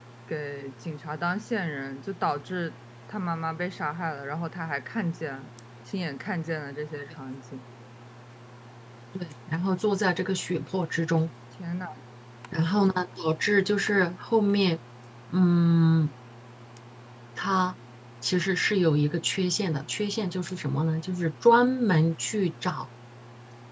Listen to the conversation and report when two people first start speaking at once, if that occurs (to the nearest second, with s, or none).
none